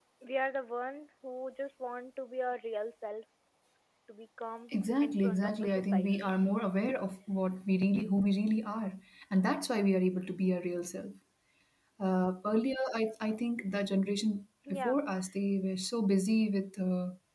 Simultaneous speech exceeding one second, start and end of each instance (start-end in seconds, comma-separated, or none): 5.0-6.3